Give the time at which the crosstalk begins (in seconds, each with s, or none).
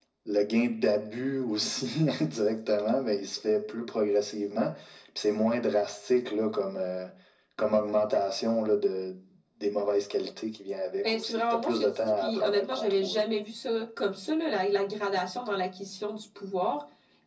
11.0 s